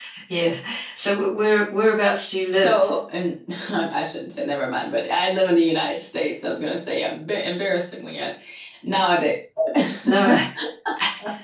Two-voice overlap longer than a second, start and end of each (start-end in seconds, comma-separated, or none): none